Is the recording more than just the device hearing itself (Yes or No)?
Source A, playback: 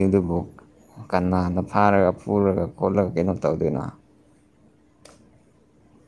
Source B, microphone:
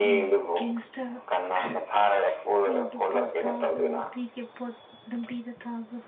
Yes